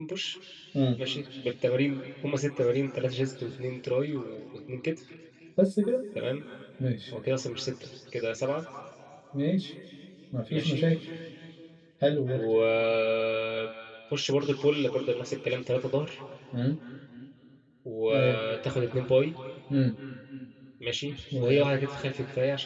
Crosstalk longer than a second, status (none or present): none